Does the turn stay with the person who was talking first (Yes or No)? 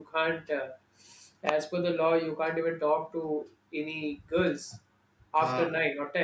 Yes